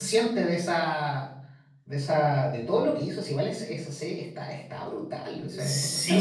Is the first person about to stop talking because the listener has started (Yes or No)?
Yes